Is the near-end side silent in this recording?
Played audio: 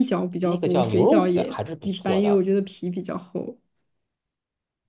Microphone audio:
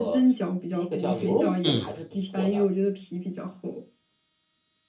No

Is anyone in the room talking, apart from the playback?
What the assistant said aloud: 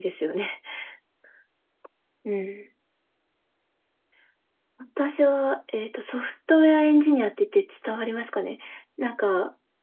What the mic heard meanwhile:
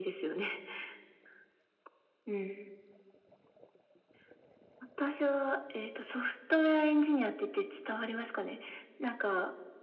No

